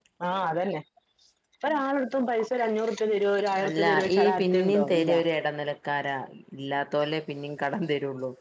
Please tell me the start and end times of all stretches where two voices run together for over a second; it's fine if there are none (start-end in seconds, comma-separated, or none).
3.7-5.1